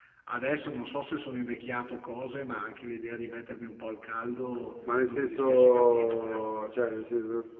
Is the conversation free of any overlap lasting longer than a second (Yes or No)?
No